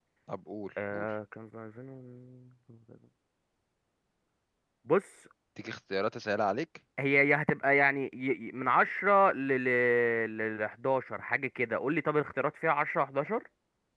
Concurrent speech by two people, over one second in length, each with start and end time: none

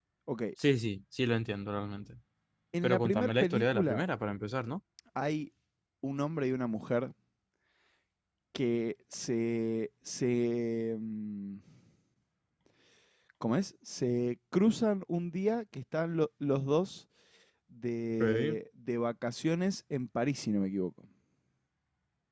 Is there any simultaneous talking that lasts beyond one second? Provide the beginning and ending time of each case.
2.8-4.0

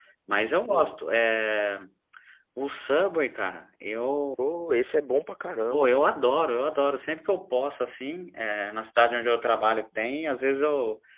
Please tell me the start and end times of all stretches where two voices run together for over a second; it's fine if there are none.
none

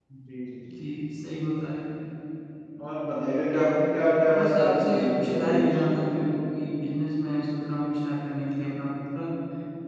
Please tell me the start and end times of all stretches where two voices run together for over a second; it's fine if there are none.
4.3-5.8

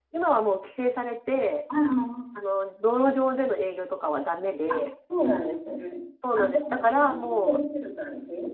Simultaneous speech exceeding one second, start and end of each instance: 6.4-7.6

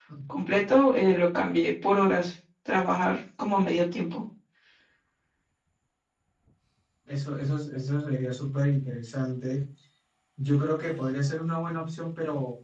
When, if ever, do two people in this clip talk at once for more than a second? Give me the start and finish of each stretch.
none

